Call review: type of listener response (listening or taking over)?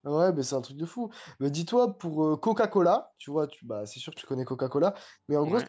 listening